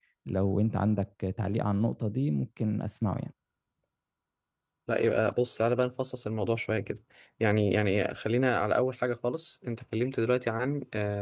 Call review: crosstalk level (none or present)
none